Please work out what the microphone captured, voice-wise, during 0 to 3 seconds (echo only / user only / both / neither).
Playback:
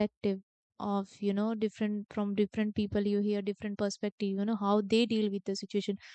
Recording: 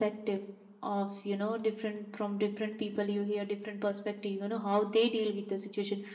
echo only